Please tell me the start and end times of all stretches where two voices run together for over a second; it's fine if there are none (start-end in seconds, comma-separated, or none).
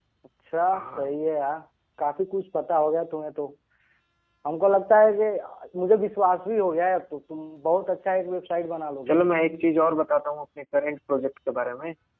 none